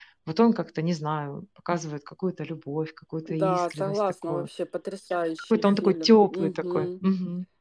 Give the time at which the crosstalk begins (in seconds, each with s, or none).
3.2 s